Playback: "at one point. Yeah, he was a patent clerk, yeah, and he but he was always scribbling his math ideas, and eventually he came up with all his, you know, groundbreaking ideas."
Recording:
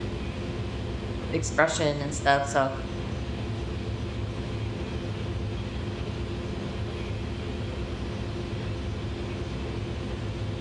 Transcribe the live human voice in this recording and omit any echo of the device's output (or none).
expression and stuff. So